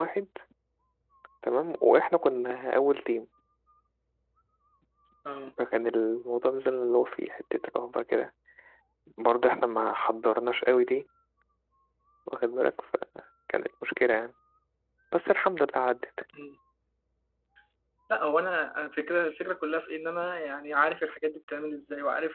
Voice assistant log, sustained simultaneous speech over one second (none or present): none